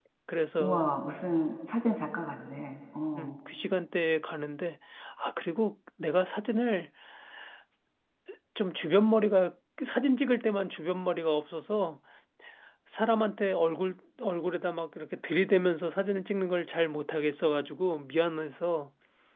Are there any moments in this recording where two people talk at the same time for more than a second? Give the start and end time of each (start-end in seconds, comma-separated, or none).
none